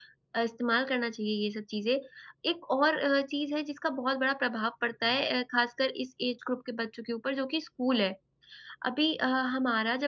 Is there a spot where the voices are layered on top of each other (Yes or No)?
No